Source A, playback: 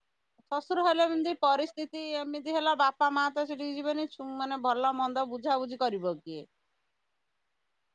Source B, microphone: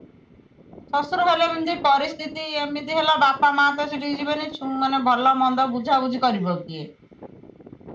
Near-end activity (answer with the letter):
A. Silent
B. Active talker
A